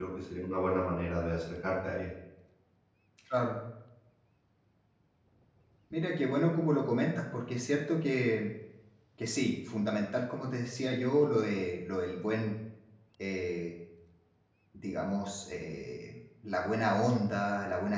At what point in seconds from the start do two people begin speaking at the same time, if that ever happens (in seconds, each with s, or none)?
none